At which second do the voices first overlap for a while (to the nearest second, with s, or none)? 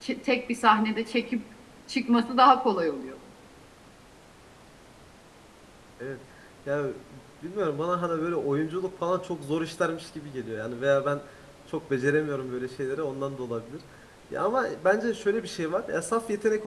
none